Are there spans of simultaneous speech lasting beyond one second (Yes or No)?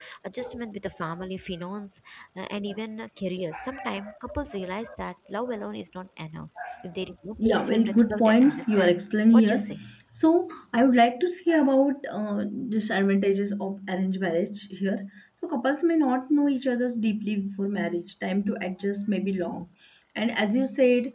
Yes